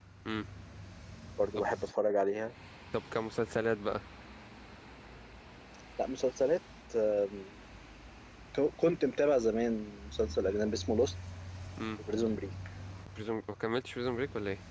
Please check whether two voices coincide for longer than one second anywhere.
No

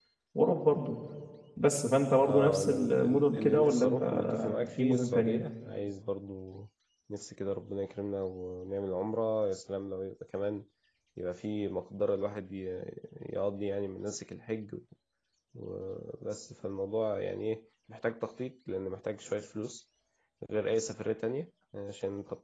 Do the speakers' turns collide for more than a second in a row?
Yes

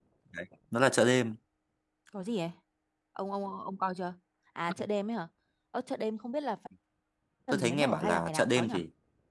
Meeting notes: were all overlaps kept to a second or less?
No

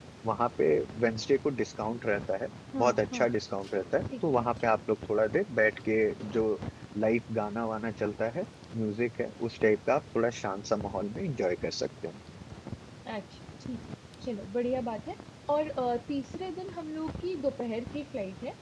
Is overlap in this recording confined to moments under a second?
Yes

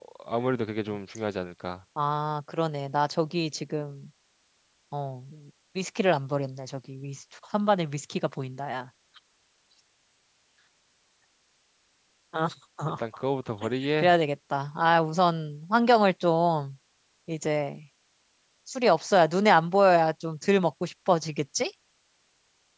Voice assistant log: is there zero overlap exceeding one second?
Yes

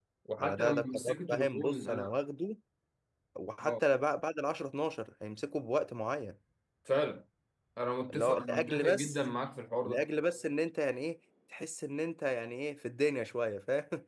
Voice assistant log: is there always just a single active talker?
No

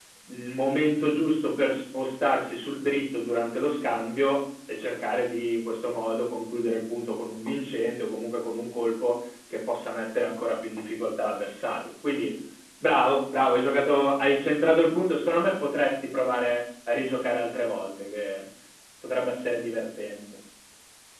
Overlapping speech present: No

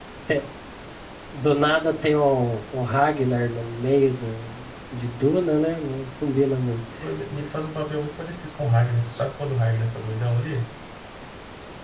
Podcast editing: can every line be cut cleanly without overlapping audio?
Yes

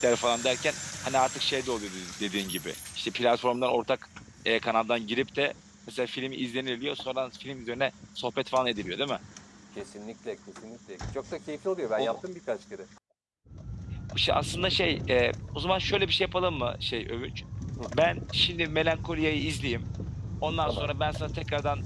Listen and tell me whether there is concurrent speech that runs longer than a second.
No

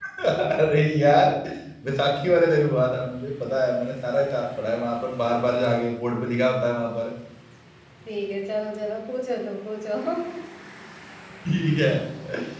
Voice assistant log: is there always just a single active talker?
Yes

